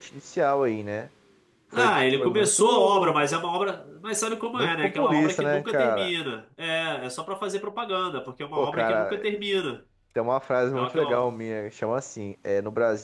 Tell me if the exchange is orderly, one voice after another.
No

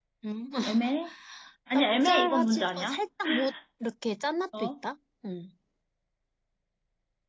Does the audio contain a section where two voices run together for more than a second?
Yes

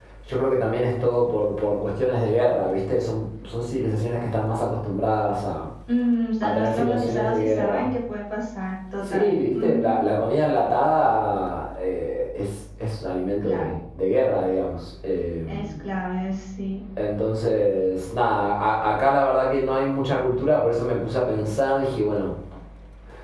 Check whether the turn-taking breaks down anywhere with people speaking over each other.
Yes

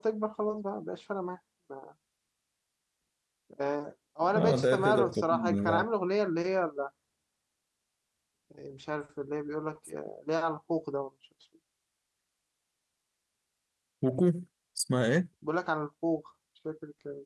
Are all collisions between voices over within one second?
No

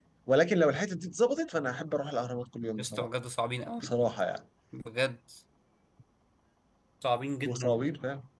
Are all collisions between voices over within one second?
Yes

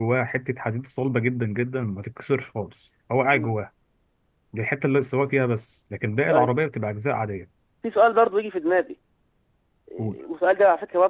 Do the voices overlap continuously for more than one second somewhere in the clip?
No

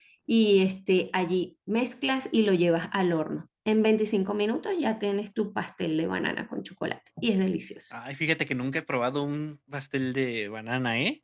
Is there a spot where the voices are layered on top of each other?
No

